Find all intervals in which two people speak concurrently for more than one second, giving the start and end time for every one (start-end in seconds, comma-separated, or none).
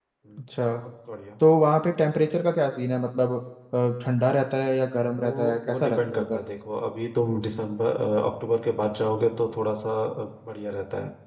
5.1-6.4